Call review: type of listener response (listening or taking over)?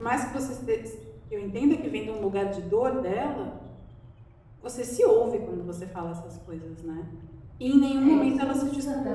taking over